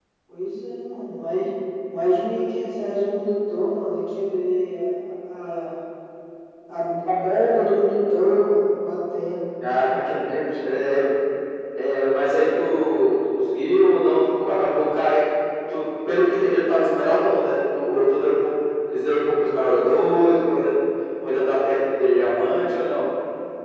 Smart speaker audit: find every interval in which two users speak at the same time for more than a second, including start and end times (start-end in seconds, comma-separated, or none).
none